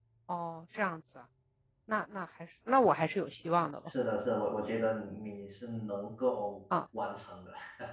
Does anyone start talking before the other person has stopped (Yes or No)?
No